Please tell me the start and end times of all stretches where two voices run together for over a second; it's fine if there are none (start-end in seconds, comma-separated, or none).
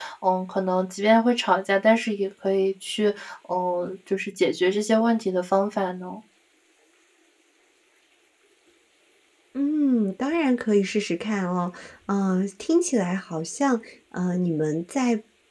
none